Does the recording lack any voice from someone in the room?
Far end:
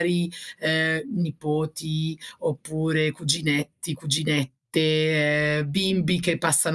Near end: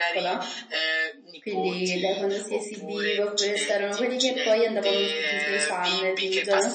No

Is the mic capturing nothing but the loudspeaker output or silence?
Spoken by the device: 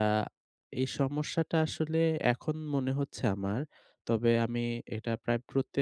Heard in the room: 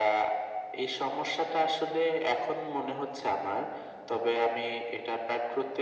Yes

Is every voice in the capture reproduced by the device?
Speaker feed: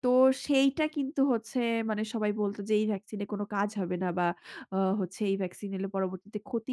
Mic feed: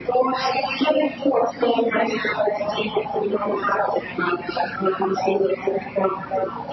Yes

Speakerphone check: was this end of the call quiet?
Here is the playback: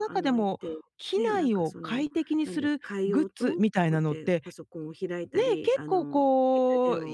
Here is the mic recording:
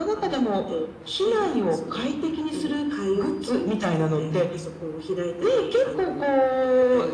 Yes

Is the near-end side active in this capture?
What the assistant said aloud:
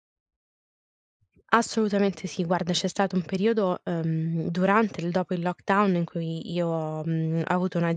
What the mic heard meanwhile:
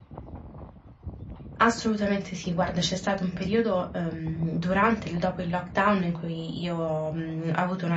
No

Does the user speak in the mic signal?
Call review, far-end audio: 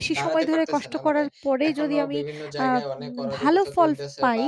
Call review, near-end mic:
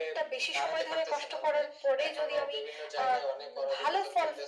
No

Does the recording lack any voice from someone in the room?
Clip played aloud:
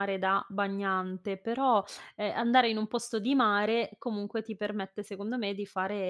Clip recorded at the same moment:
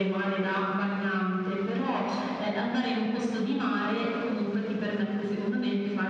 Yes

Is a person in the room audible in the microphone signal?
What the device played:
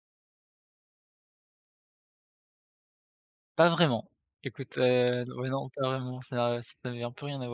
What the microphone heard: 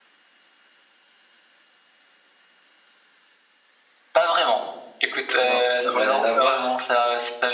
Yes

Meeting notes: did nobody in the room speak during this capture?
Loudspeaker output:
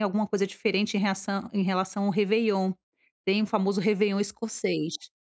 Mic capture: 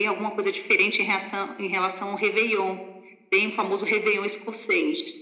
Yes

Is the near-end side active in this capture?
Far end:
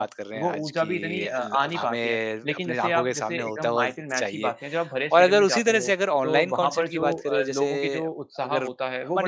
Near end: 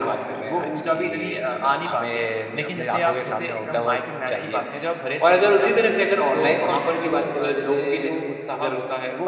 No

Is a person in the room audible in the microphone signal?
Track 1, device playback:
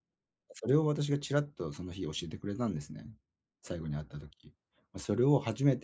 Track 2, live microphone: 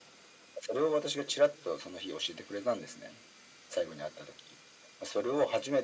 No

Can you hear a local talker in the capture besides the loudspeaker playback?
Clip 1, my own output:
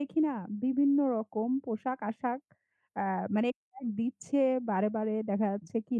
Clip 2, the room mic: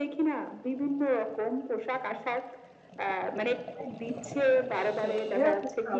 Yes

